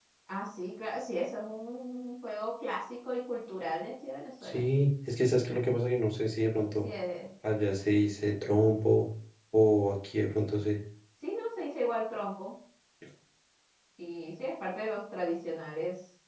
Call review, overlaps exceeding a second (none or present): none